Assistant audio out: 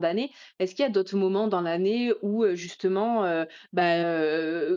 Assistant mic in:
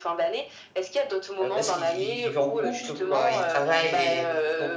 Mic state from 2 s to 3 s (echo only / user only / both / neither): both